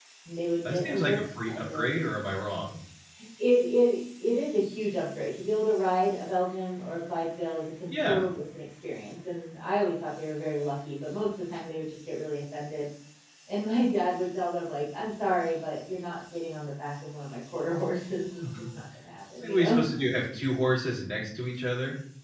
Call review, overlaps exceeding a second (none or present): present